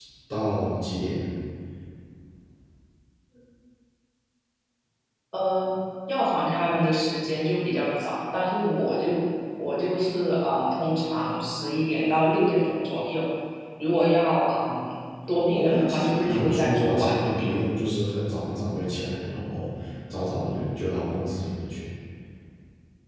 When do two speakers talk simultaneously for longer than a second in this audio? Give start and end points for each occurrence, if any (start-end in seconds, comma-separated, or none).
15.5-17.5